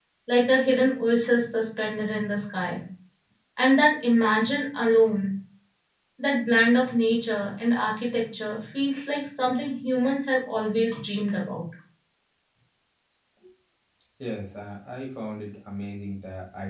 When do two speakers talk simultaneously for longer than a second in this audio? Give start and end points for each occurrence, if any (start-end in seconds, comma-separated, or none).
none